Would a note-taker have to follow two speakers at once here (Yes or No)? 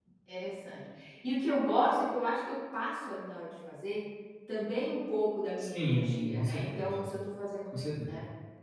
Yes